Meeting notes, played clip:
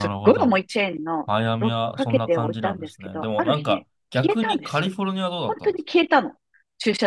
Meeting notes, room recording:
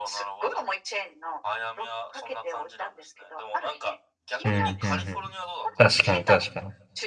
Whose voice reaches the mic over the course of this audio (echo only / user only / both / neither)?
both